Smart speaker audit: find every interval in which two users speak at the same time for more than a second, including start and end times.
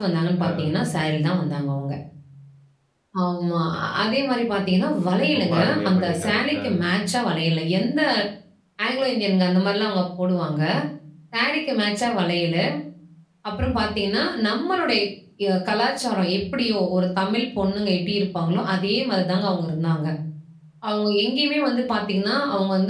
5.4-6.6

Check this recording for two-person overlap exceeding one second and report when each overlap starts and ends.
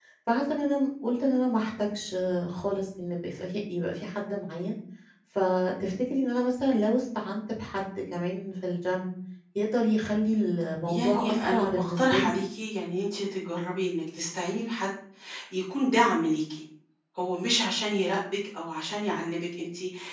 10.9-12.4

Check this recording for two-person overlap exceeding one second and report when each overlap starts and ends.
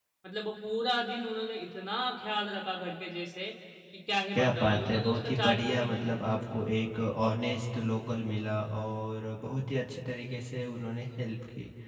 4.3-6.2

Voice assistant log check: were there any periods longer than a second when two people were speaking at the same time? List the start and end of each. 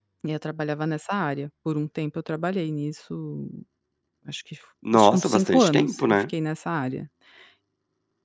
4.9-6.3

